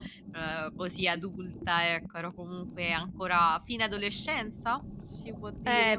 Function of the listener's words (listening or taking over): taking over